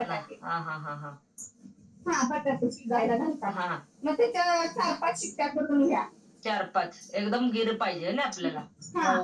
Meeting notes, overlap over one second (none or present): none